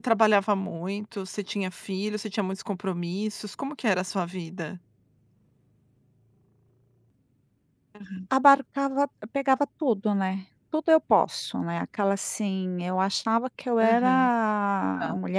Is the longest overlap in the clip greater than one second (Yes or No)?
No